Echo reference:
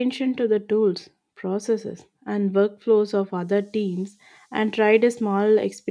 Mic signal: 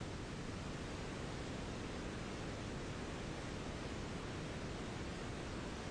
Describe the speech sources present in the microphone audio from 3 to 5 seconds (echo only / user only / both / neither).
neither